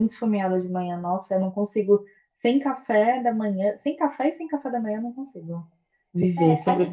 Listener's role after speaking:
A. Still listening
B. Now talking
B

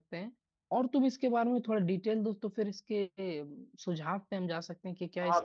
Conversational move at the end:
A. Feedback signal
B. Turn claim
B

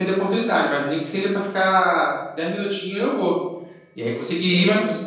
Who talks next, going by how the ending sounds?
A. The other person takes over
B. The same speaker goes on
B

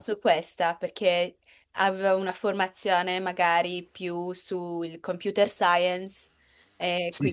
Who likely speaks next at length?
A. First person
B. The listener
B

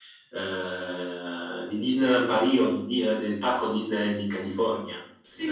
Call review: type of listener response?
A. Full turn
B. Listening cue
A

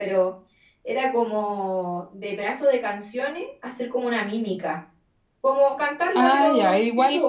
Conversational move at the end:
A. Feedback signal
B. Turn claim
B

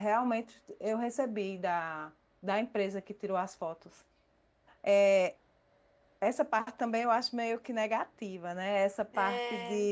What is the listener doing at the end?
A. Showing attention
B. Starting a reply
A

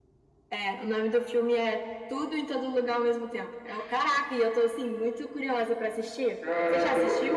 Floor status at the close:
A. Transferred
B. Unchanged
A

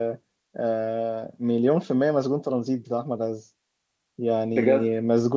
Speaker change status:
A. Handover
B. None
B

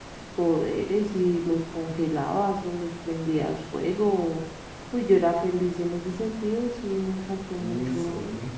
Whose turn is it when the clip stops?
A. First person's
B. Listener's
B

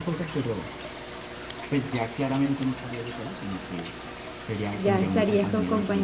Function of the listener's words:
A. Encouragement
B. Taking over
B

